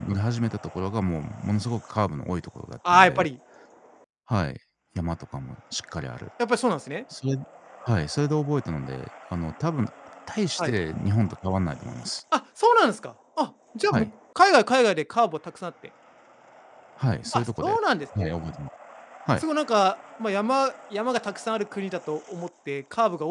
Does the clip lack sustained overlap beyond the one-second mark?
Yes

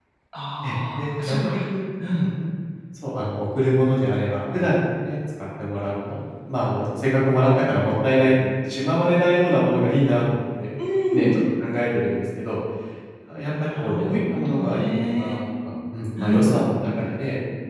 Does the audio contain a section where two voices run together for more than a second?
Yes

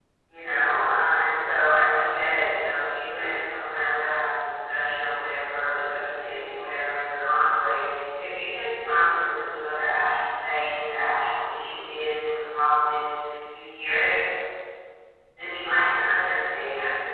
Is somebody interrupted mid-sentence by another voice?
No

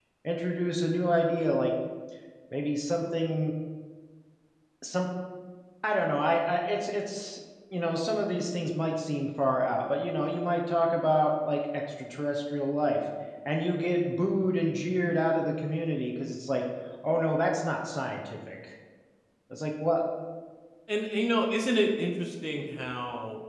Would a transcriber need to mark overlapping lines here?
No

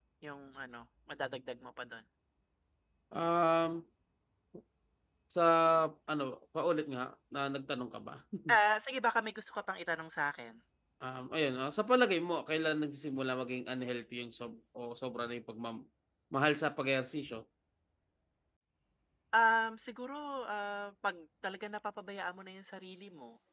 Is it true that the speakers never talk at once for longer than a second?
Yes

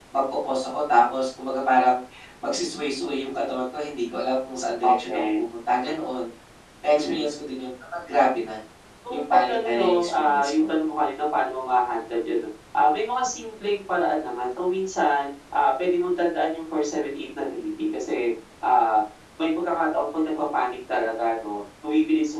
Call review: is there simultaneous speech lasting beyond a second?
Yes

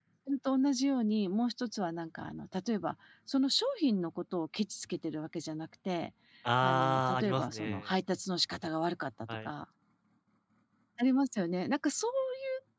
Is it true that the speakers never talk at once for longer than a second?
No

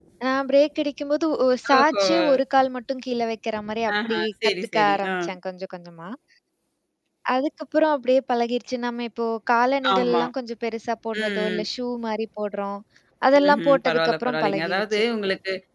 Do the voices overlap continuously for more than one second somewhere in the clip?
Yes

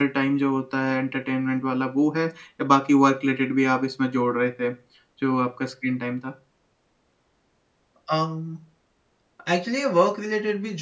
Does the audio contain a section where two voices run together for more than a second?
No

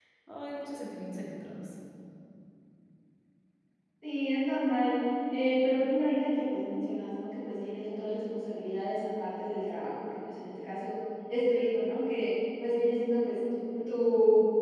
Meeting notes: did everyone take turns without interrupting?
Yes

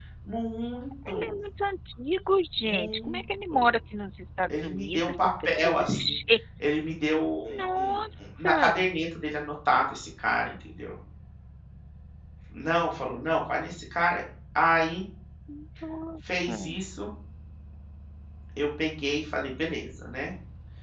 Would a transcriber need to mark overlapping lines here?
Yes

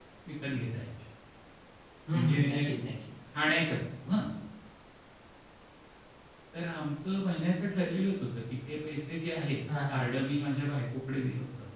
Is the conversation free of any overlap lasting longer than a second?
Yes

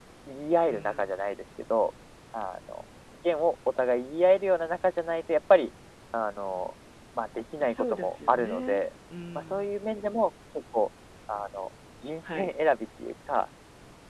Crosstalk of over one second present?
Yes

